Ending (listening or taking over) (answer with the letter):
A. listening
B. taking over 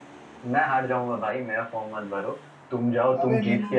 B